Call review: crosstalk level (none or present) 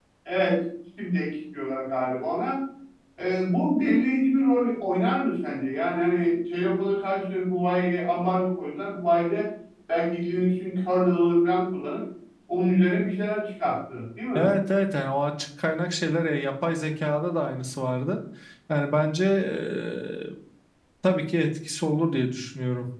none